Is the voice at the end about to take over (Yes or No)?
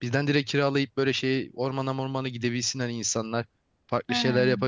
No